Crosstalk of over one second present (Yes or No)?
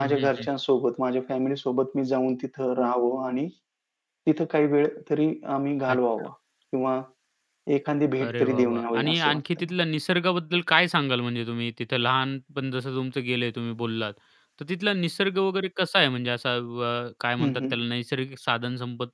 Yes